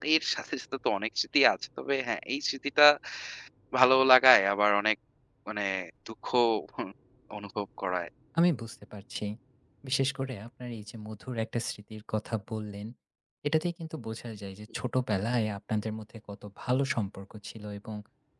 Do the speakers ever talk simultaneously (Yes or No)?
No